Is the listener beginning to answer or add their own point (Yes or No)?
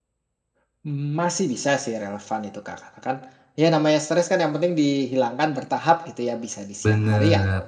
No